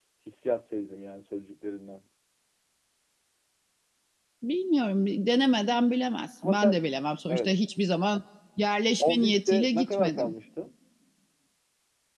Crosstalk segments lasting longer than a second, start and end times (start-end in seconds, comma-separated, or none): 9.0-10.3